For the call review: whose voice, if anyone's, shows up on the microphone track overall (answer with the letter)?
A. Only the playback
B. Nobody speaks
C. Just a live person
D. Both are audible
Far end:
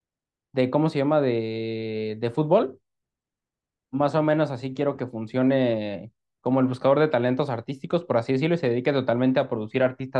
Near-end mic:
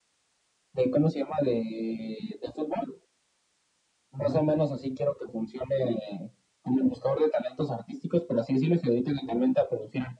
D